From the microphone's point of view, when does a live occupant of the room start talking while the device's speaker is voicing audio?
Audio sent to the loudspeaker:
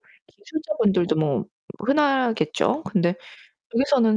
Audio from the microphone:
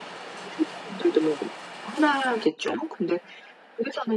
none

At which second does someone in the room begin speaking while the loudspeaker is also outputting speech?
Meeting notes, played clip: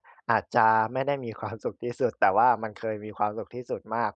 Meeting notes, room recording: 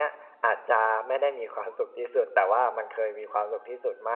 none

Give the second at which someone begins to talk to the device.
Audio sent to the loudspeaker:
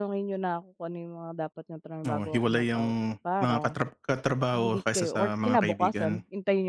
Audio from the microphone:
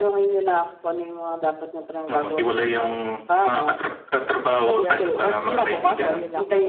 4.4 s

